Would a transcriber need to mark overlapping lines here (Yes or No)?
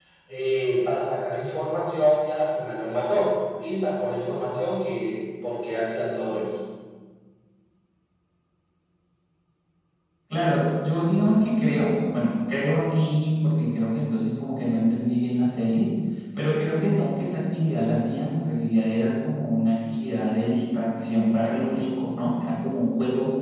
No